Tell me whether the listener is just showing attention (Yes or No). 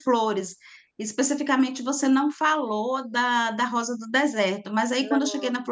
Yes